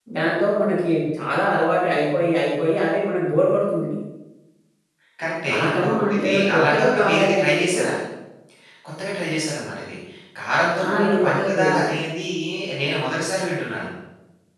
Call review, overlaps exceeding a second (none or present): present